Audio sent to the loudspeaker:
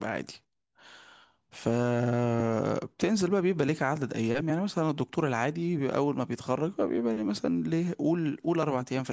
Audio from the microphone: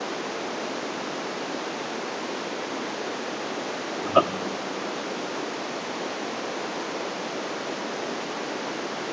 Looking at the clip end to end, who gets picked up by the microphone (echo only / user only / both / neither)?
user only